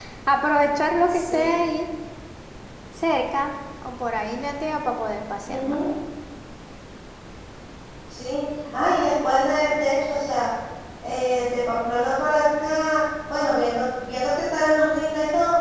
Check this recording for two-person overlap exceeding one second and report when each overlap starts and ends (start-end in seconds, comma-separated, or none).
none